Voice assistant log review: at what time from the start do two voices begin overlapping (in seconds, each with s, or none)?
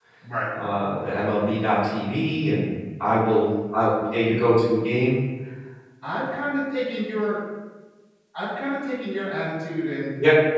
none